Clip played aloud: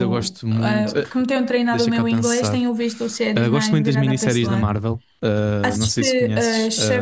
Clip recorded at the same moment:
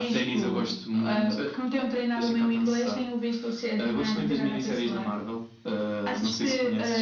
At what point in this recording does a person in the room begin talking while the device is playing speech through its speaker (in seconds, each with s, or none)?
none